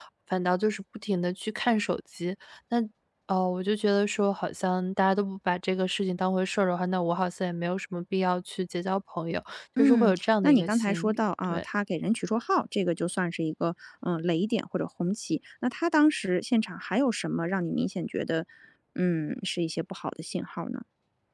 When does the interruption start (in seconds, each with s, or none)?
9.8 s